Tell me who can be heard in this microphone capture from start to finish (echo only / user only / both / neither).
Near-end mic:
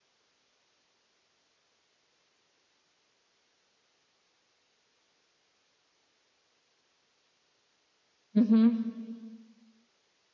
user only